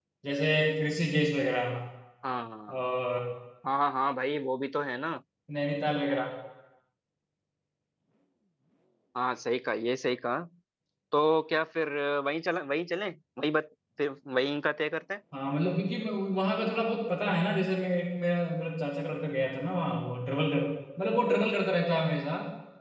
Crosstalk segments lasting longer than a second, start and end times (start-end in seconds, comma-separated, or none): none